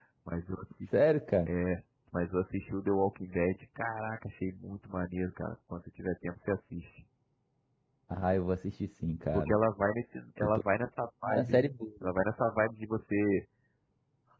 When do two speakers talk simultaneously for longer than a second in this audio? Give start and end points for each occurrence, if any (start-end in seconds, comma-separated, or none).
none